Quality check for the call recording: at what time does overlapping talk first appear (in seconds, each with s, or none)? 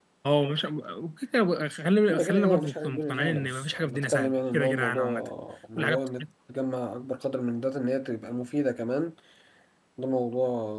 2.1 s